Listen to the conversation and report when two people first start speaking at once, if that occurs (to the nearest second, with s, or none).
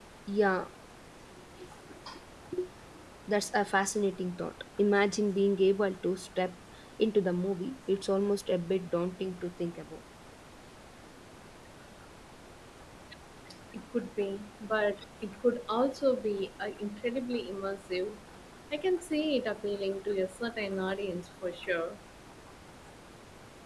none